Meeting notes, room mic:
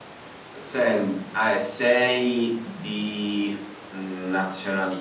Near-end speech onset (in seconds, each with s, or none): none